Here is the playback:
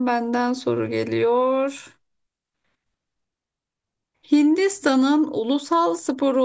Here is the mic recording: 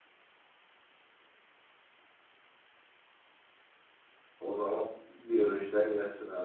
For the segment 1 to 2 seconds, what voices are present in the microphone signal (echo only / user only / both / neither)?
neither